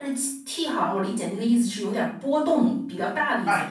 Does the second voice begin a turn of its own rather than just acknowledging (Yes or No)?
Yes